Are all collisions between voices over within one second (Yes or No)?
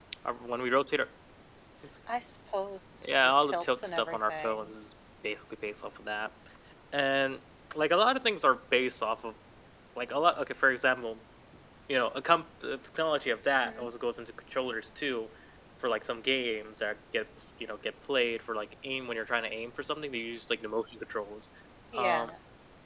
No